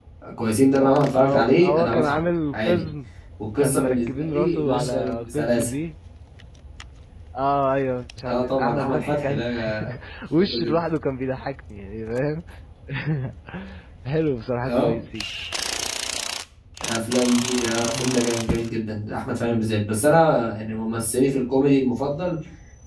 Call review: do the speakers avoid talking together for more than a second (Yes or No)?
No